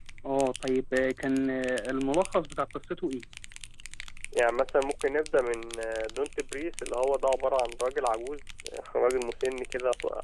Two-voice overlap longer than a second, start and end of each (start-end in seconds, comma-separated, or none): none